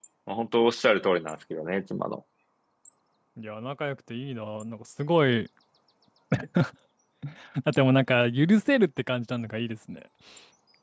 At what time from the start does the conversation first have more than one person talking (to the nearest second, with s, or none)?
none